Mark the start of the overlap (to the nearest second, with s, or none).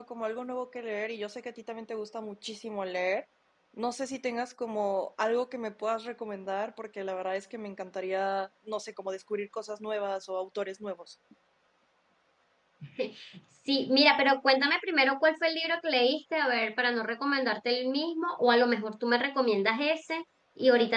none